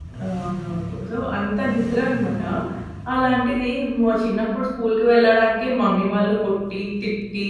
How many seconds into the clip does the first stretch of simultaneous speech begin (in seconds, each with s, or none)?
none